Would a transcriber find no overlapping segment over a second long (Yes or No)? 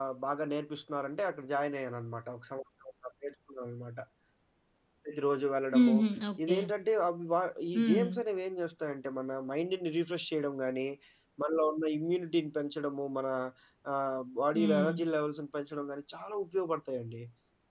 Yes